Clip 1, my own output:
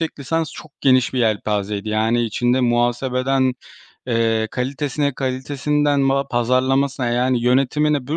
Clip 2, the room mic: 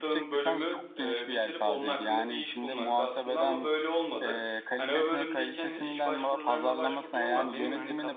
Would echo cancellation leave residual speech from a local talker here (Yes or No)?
Yes